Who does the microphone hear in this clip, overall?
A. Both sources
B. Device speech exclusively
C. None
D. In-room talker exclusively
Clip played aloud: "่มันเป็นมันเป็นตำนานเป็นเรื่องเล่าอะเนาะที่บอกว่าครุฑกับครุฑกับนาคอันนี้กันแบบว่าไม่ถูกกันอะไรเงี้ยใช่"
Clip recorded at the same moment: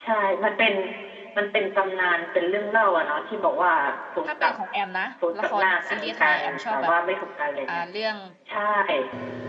A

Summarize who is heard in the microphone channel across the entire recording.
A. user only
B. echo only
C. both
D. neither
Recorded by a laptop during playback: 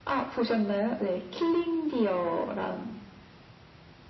B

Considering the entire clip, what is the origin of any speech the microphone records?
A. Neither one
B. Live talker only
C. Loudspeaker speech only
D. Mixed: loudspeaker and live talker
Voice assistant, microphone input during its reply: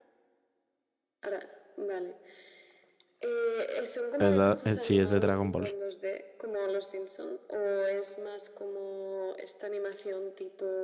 D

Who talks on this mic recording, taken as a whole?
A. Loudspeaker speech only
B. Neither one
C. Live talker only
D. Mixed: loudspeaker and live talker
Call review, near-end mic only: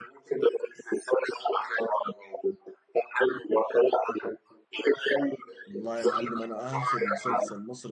D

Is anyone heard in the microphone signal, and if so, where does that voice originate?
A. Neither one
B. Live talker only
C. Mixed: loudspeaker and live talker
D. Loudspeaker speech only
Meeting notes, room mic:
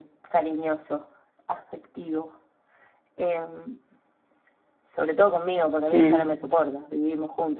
C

